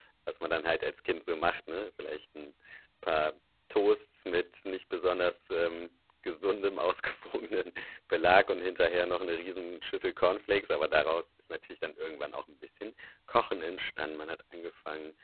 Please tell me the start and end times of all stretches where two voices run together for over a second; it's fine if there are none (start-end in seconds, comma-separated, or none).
none